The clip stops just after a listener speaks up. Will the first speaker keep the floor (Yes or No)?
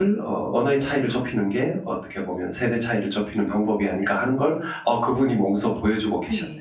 No